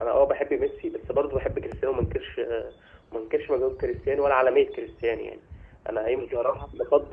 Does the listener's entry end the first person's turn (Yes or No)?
No